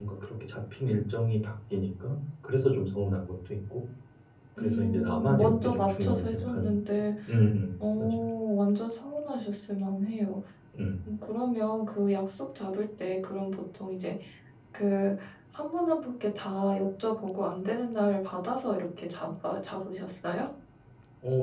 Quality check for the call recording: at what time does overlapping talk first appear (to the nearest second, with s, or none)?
5 s